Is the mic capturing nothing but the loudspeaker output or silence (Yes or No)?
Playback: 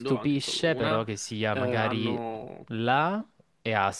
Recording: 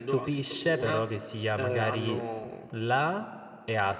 Yes